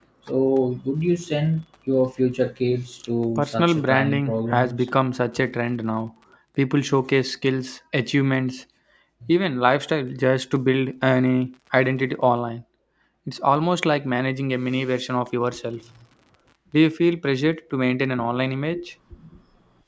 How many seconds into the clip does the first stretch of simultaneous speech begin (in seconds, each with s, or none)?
3.4 s